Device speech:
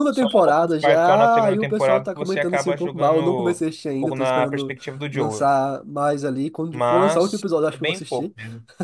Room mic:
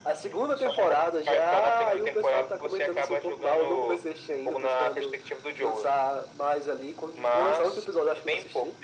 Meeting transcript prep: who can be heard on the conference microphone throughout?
echo only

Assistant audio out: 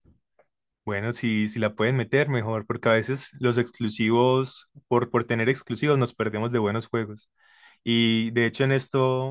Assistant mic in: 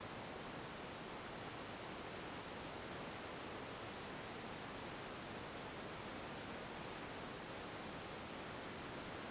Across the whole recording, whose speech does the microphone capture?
neither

